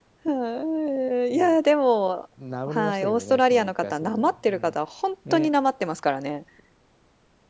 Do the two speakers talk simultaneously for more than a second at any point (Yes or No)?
Yes